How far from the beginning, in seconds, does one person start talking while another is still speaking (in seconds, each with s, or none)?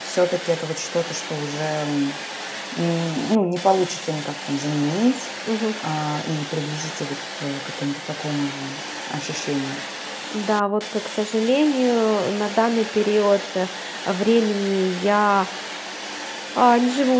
none